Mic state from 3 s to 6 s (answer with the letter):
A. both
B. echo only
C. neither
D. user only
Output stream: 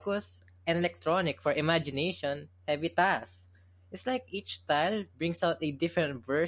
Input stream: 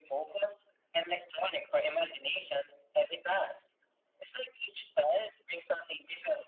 B